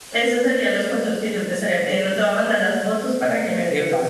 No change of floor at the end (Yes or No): No